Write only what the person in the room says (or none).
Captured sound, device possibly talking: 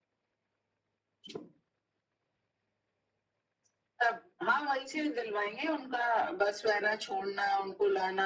none